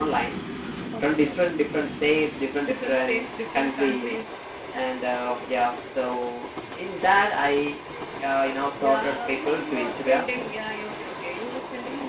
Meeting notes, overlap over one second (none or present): present